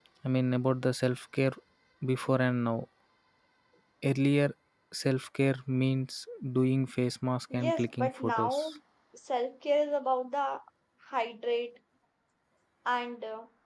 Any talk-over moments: Yes, from 7.5 s

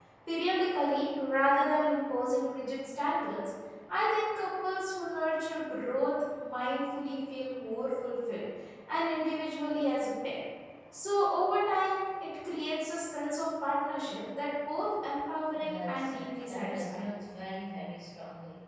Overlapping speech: Yes, from 15.6 s

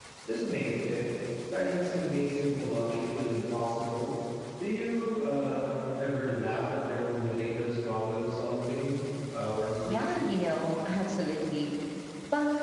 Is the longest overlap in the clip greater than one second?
No

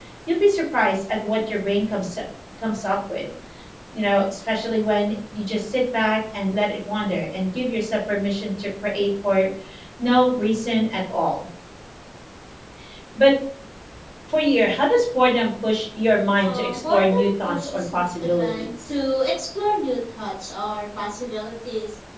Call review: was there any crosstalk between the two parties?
Yes, from 16.4 s

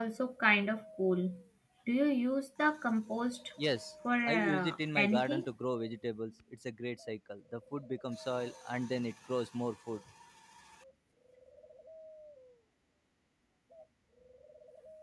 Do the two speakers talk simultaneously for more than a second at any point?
Yes, from 4.2 s

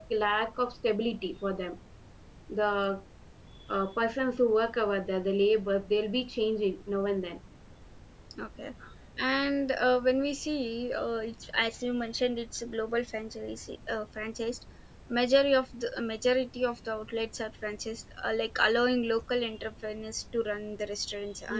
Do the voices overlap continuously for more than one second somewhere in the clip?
No

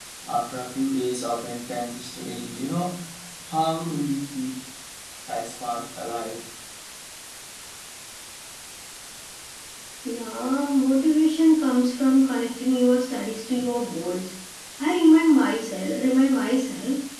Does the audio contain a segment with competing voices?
No

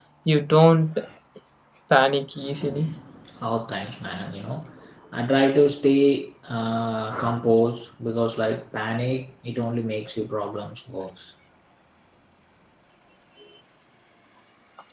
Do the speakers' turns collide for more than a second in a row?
No

